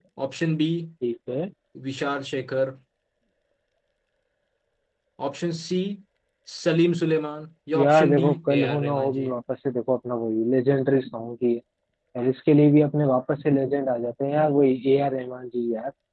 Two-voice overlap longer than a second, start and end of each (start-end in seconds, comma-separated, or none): 7.8-9.3